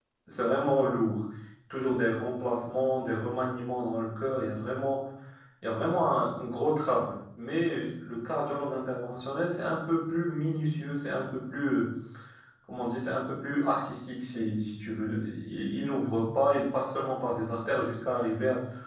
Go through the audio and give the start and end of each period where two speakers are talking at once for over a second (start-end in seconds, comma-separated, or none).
none